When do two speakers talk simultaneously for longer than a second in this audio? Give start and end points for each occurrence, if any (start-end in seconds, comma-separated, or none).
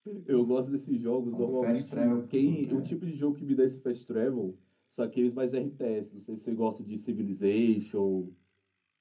1.3-2.9